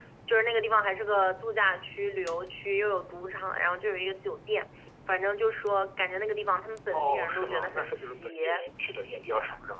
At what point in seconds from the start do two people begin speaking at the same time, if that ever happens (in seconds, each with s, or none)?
6.9 s